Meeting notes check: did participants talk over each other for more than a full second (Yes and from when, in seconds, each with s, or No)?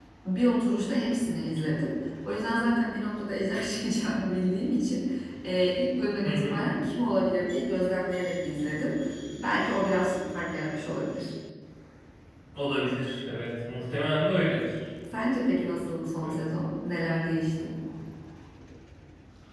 No